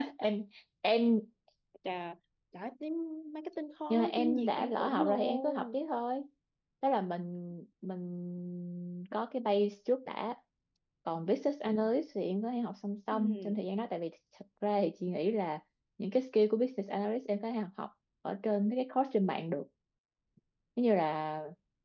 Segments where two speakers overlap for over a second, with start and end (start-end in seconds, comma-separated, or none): 3.9-5.7